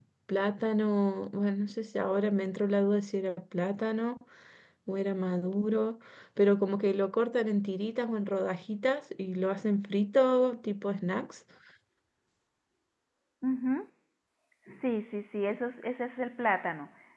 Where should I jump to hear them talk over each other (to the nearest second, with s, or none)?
none